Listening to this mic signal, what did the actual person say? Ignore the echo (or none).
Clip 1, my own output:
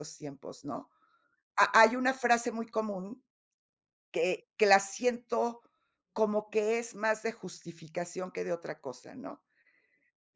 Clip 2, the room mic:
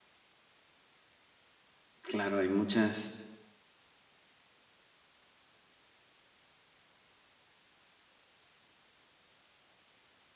Claro, hay muchas